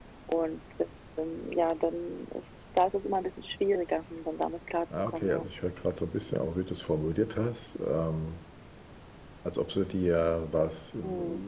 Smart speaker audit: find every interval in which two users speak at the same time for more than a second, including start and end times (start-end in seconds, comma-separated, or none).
none